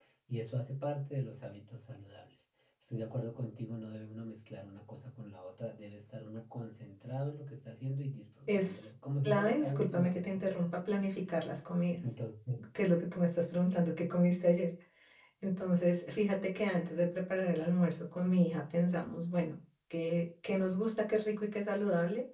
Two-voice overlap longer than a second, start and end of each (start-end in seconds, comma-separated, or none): 9.2-11.0